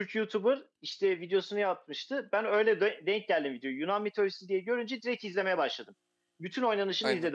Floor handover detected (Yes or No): No